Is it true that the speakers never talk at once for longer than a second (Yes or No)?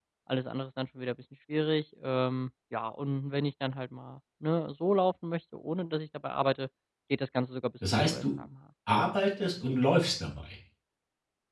Yes